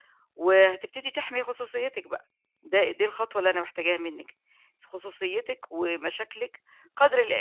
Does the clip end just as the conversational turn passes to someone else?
No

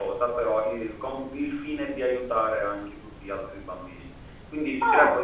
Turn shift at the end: No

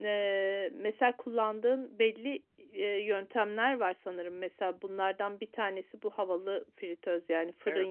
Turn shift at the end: No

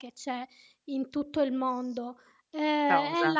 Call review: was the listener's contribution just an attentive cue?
Yes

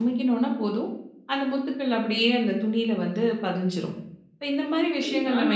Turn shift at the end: Yes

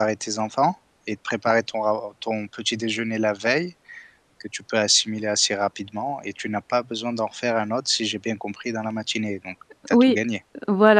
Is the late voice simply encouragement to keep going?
No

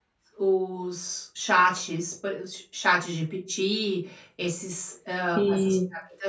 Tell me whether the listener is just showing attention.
Yes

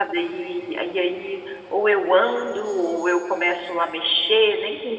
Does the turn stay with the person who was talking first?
No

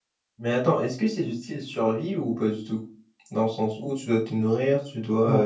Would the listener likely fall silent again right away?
No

